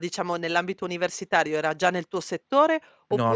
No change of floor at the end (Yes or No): Yes